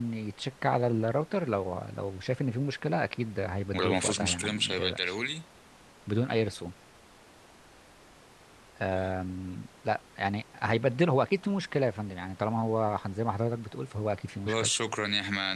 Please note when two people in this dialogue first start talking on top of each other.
3.8 s

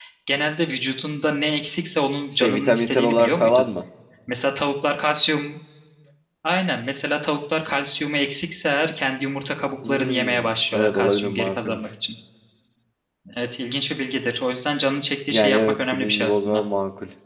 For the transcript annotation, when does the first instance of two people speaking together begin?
2.3 s

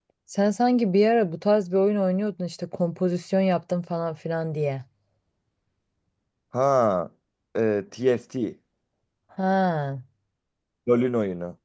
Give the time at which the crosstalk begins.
none

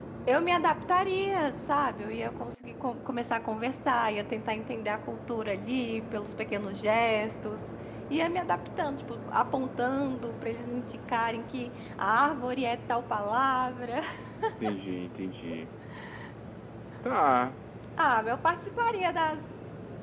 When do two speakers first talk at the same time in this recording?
none

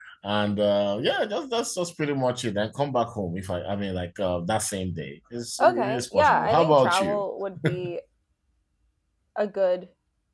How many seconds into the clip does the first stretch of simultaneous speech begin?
5.6 s

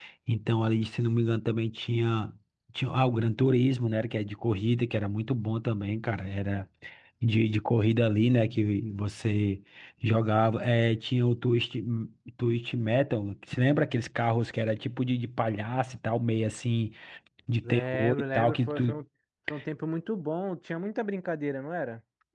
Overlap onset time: 17.7 s

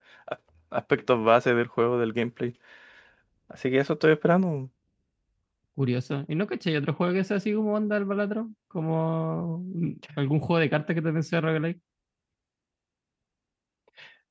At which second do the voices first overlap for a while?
none

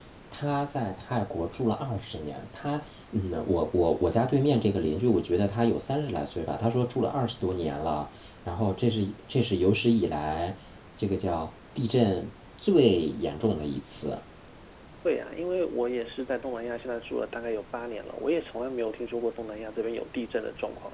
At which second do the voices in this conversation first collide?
none

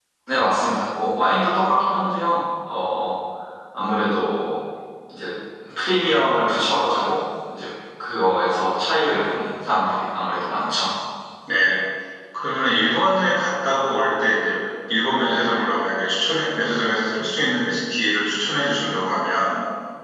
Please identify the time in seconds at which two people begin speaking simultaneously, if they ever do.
none

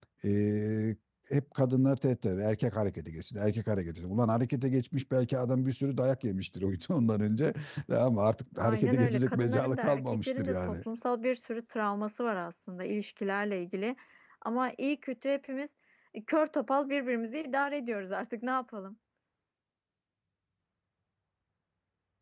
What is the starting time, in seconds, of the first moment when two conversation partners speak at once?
8.6 s

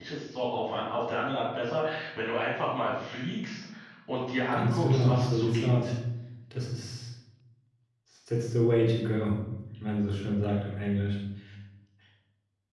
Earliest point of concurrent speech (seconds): 4.5 s

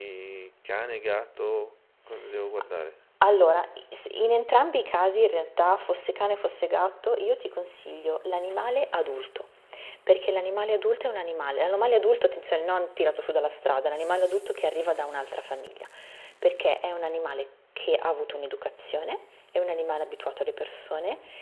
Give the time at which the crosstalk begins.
none

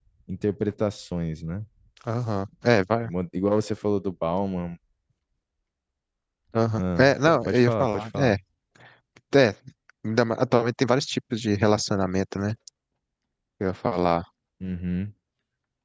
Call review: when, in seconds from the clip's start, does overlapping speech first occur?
6.8 s

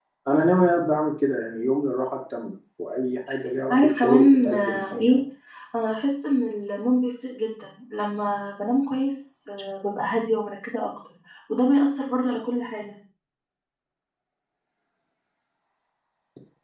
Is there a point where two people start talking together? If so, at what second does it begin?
3.7 s

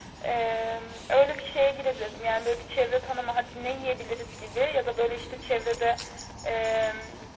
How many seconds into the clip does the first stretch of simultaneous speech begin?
none

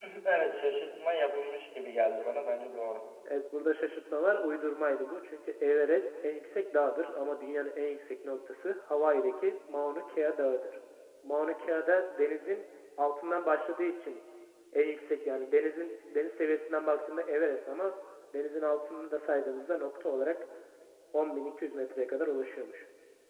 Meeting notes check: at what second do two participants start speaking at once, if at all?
none

